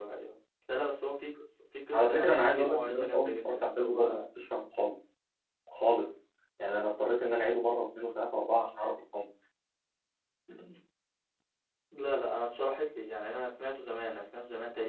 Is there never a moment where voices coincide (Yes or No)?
No